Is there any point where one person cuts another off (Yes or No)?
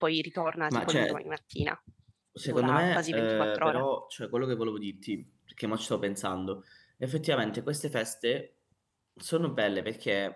Yes